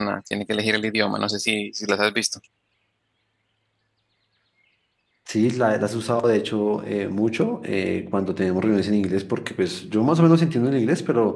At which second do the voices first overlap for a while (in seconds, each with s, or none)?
none